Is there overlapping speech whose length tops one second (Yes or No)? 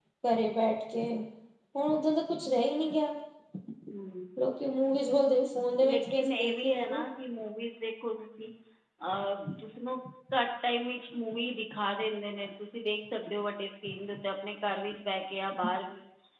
Yes